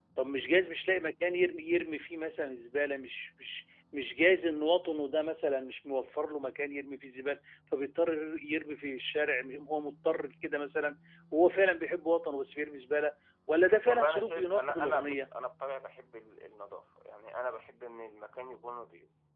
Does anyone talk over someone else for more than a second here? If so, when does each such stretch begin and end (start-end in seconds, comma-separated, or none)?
13.9-15.3